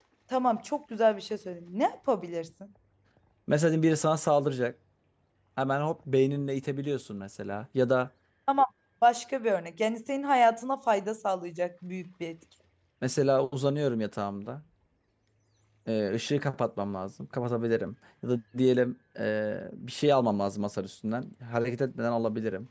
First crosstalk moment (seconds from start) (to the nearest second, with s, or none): none